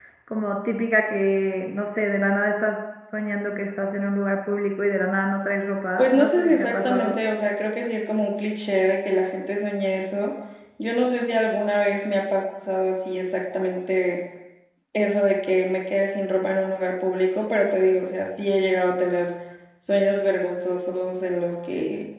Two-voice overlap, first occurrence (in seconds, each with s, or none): 6.0 s